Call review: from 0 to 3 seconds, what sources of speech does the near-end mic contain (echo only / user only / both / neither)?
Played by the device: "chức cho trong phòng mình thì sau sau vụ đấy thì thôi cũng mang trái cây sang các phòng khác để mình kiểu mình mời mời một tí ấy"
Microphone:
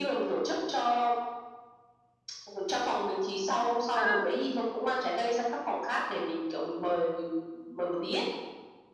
echo only